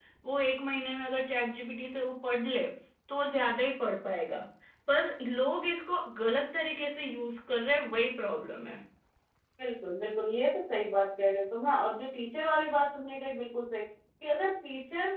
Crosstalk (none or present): none